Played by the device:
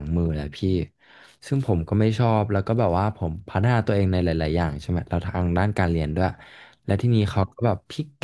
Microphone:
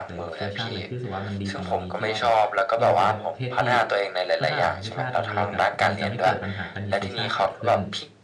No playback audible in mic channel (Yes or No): No